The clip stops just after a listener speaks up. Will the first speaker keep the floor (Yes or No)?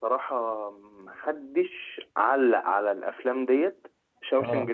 Yes